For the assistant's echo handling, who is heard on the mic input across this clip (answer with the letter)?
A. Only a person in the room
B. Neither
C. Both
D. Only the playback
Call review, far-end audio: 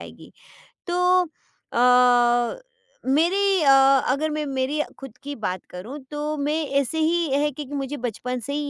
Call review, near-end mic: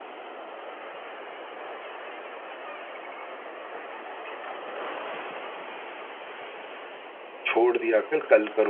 A